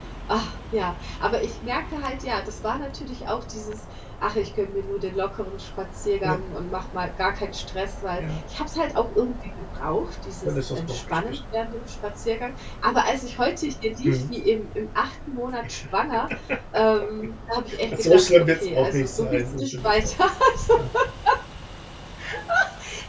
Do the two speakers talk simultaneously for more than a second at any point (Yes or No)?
Yes